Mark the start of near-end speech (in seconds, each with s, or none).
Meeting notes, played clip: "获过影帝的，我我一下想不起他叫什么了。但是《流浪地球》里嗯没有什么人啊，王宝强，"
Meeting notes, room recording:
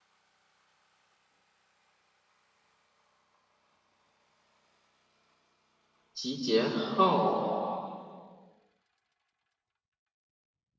6.1 s